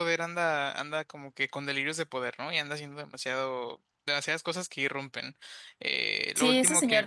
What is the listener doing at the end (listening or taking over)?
taking over